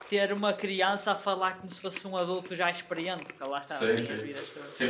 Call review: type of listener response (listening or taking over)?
taking over